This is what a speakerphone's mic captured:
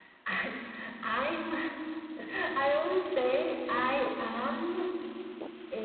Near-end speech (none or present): none